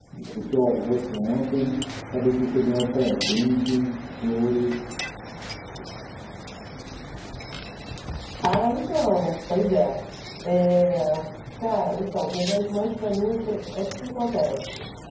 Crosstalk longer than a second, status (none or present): none